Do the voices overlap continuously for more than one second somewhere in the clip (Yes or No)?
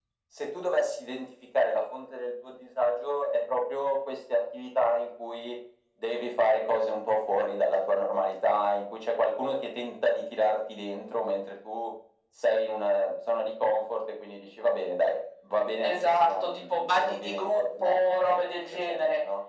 Yes